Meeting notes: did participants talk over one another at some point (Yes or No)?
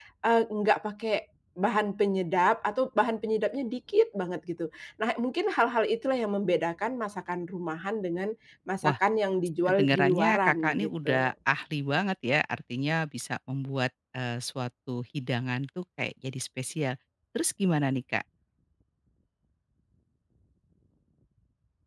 Yes